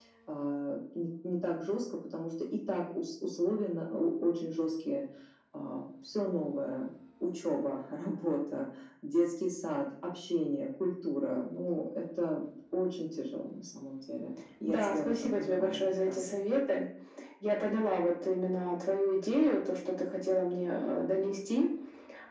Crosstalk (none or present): present